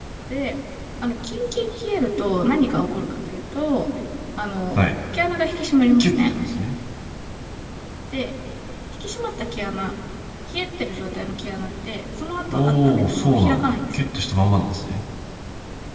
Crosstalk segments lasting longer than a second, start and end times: 12.5-14.1

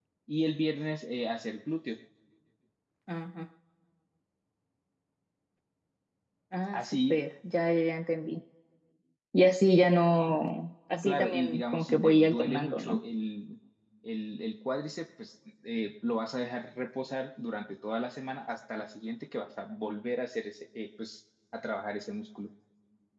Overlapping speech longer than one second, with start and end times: 11.0-13.0

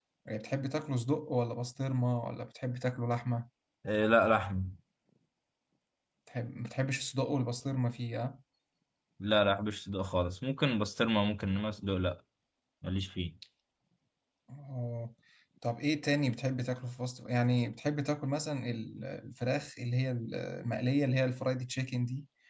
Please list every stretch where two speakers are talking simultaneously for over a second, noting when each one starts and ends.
none

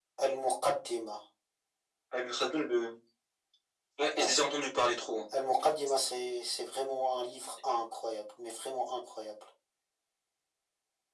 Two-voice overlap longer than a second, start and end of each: none

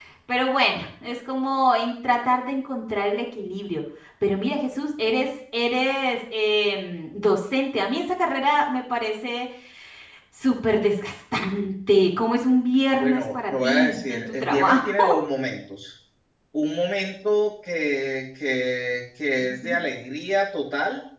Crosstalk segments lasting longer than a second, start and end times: 13.0-15.1

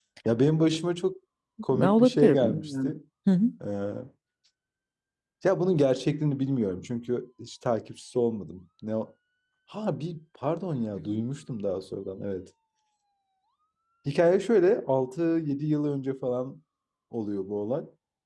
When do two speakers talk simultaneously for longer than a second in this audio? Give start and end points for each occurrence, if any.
1.7-2.9

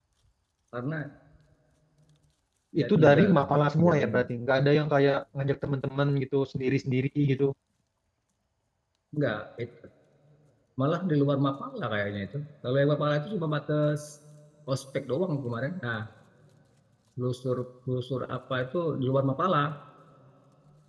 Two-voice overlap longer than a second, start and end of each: 2.8-4.3

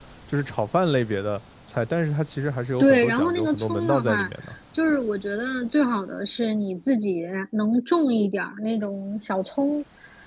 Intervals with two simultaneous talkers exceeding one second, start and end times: 2.8-4.3

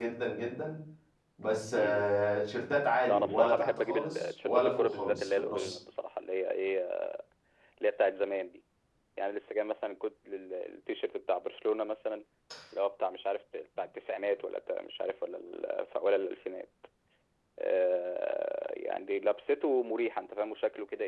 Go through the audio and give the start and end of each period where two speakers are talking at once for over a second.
3.1-5.8

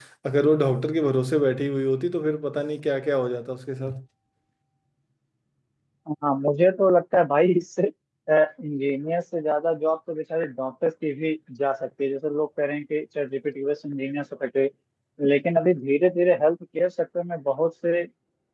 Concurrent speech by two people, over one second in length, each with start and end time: none

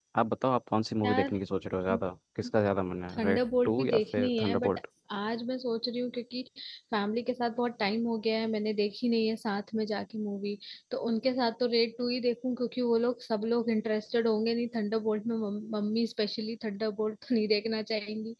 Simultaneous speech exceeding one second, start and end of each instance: 3.2-4.8

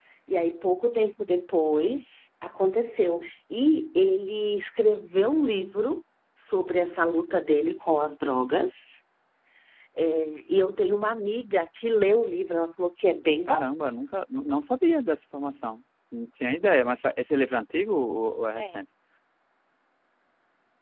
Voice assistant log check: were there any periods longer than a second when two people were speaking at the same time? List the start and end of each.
none

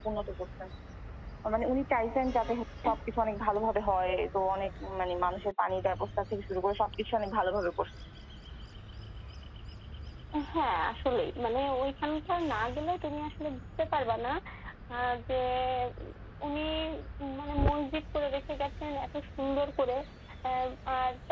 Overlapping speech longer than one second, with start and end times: none

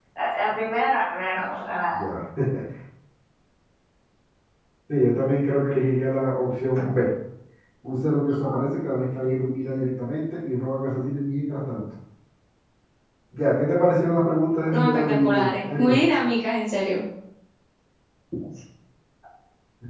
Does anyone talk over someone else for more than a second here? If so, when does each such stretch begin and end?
14.7-16.0

